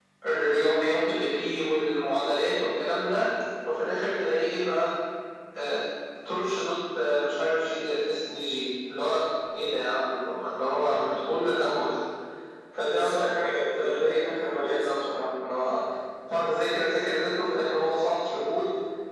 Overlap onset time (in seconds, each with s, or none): 12.9 s